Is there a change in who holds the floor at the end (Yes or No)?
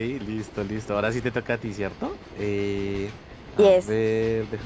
No